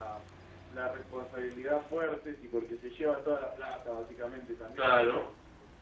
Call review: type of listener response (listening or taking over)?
listening